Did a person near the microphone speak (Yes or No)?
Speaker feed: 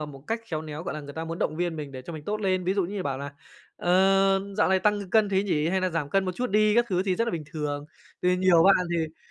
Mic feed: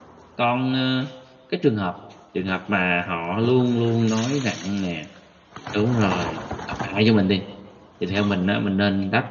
Yes